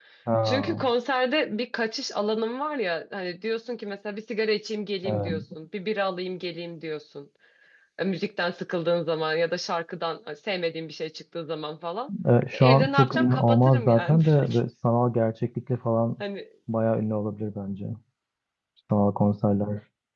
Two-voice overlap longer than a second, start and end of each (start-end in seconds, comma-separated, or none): 12.5-14.6